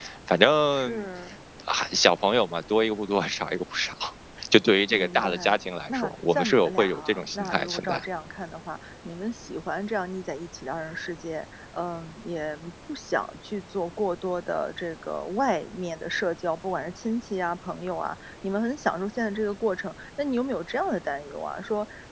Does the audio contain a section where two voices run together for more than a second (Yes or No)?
Yes